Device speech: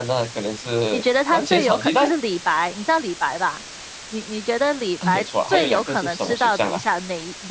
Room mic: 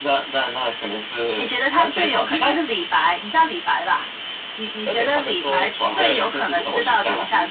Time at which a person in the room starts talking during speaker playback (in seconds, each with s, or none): 4.8 s